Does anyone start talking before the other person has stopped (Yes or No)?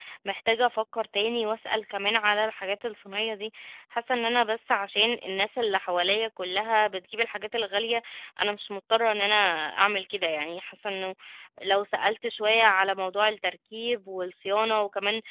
No